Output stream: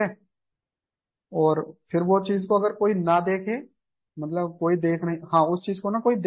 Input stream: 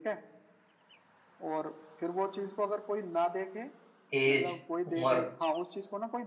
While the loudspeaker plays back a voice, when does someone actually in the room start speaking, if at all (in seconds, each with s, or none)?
4.1 s